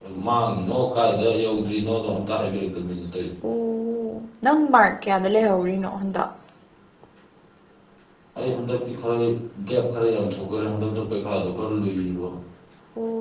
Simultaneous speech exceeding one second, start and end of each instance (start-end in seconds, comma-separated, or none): none